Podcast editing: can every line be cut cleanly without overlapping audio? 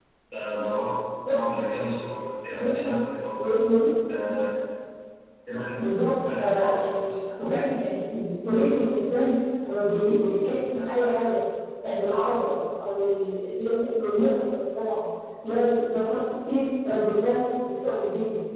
No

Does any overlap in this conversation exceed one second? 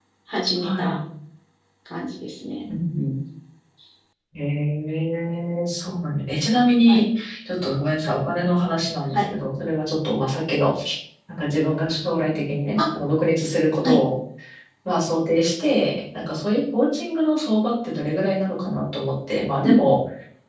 No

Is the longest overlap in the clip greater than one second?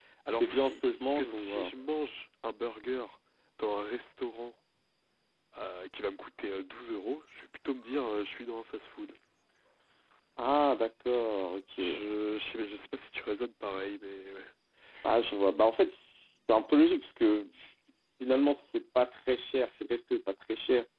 Yes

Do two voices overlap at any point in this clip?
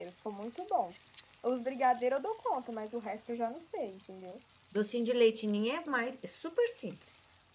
No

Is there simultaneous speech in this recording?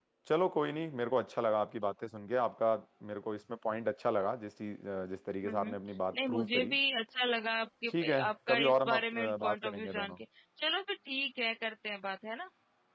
Yes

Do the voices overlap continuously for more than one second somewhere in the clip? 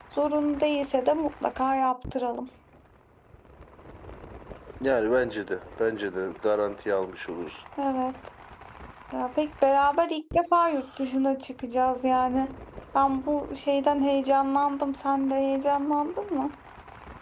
No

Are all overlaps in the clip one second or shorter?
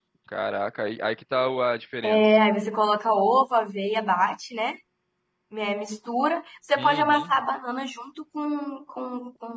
Yes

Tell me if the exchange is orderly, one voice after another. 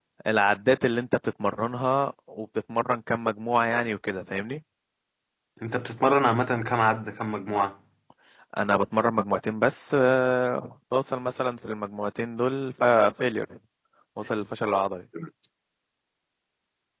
Yes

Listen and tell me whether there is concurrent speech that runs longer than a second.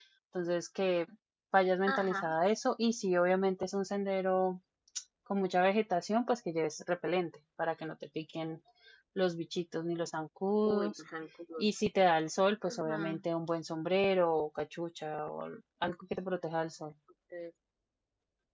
No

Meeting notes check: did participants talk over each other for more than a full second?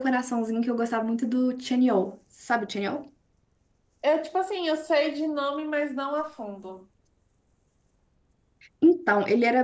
No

